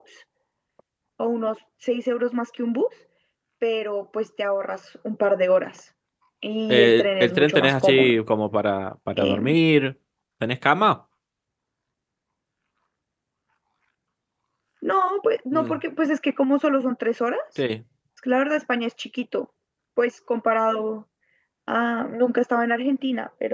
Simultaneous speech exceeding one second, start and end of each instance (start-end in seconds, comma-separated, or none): 6.7-8.2